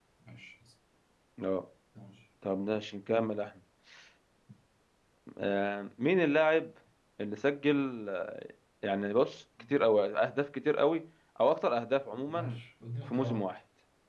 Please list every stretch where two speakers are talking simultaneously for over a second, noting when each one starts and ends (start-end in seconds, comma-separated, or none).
none